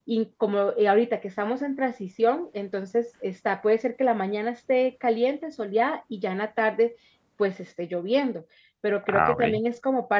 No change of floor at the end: Yes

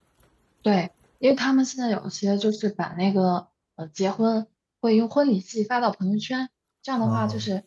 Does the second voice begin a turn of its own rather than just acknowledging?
No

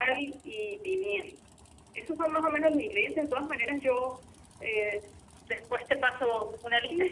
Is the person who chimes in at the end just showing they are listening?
No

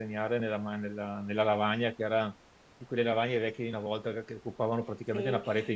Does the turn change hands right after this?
Yes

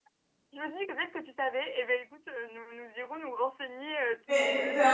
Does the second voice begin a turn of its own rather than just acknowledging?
Yes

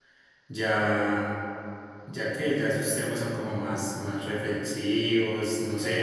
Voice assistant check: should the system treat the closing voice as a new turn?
Yes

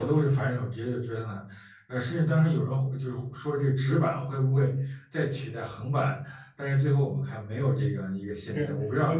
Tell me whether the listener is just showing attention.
No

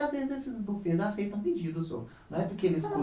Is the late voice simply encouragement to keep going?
Yes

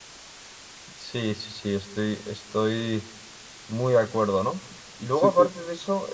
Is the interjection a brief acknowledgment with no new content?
Yes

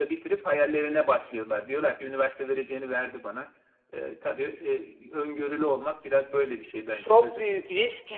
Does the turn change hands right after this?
Yes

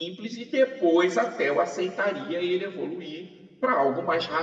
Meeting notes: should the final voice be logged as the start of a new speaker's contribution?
No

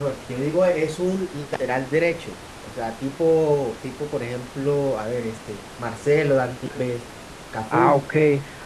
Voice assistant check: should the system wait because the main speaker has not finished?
No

